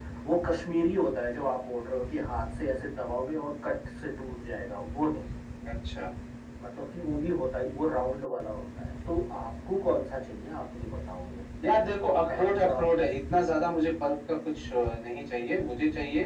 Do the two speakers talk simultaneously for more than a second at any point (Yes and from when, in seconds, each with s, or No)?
Yes, from 11.6 s